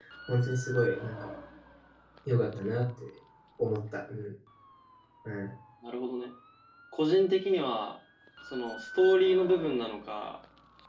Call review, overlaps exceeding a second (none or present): none